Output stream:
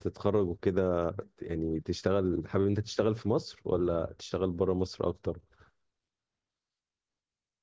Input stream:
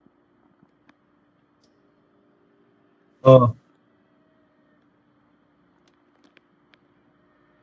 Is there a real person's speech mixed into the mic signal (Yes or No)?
Yes